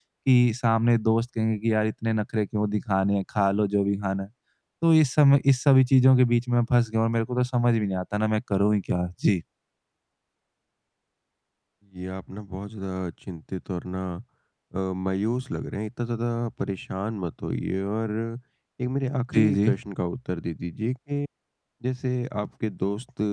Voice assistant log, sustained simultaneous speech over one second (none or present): none